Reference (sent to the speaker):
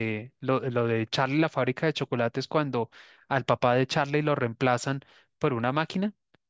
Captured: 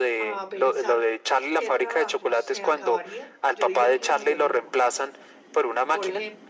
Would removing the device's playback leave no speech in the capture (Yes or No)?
No